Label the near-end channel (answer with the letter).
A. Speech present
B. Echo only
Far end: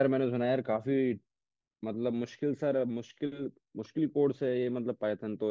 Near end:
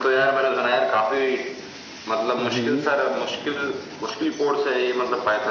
A